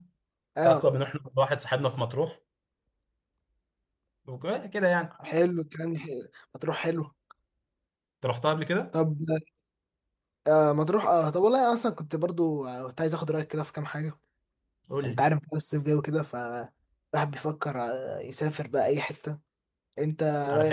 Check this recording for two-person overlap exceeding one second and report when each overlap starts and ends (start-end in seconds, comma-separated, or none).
none